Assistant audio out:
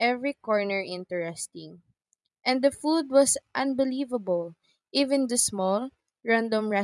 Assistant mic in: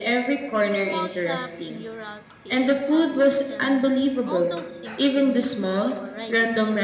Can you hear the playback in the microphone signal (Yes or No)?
Yes